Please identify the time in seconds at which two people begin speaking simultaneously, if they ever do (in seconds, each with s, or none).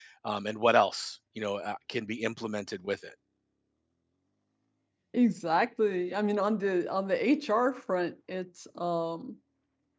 none